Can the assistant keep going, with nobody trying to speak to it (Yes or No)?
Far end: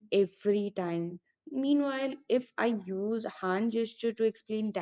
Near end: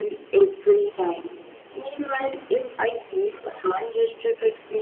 Yes